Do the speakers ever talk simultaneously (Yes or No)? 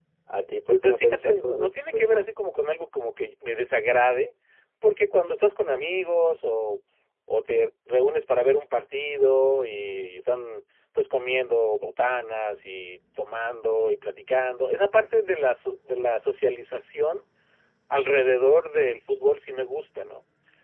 Yes